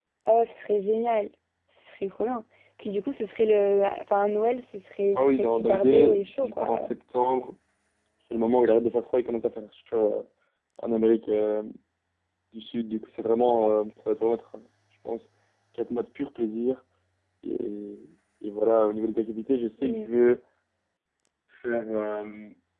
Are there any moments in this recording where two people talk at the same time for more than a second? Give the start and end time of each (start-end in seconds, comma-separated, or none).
5.2-6.8